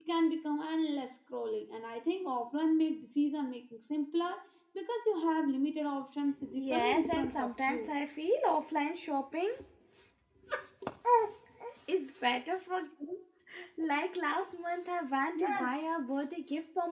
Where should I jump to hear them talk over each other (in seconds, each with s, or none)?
6.5 s